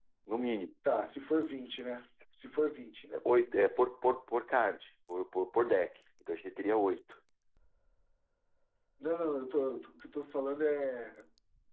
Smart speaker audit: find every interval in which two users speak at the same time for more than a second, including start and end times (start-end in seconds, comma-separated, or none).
none